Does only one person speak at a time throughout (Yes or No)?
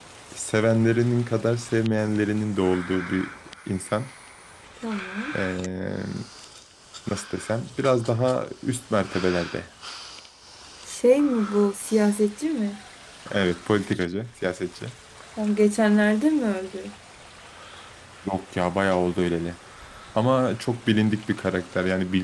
Yes